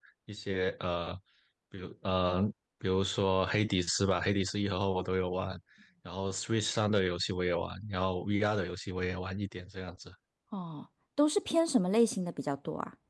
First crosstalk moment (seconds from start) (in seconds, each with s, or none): none